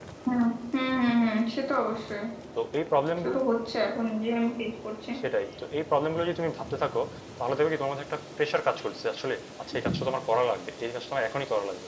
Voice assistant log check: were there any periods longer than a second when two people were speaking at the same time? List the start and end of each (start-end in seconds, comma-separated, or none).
none